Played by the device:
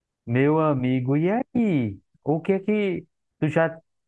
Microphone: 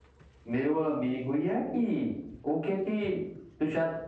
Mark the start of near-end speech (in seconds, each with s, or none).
none